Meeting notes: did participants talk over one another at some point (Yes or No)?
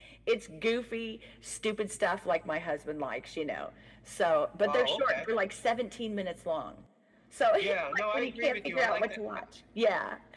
Yes